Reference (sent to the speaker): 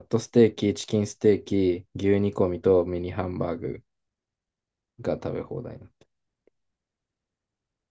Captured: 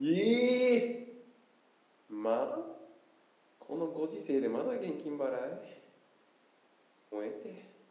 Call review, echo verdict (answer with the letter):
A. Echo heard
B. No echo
B